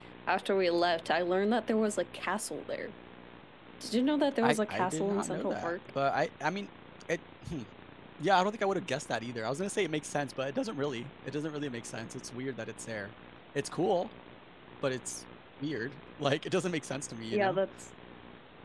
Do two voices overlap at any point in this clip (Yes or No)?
Yes